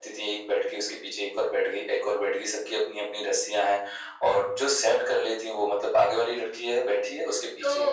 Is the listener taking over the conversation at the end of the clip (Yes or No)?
Yes